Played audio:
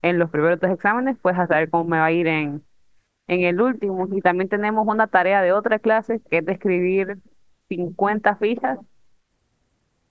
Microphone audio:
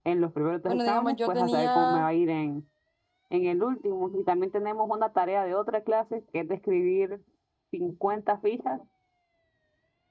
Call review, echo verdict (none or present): present